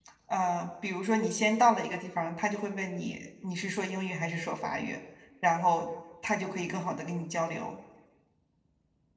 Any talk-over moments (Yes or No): No